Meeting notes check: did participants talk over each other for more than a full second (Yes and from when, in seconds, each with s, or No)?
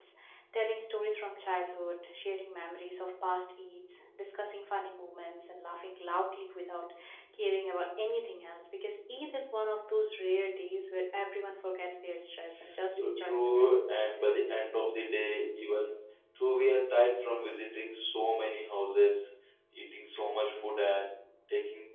Yes, from 13.0 s